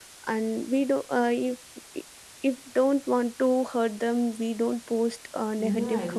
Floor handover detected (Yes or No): Yes